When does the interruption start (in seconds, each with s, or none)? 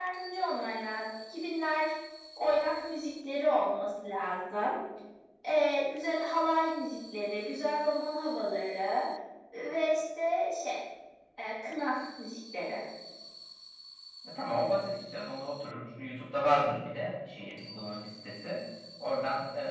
none